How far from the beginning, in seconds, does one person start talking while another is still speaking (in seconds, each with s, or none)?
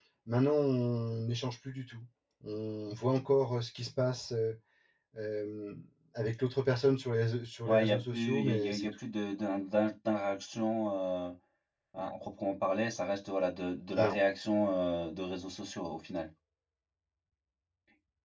7.7 s